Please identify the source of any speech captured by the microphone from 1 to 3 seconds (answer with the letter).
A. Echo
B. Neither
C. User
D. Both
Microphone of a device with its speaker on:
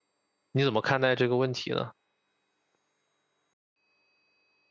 C